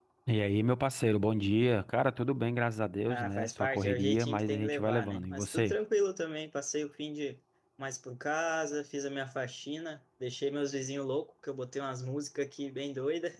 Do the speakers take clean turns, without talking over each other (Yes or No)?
No